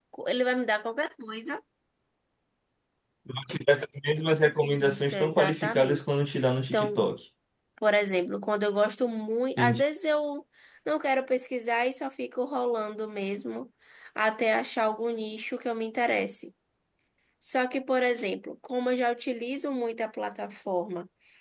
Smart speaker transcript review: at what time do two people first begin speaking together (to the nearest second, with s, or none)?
5 s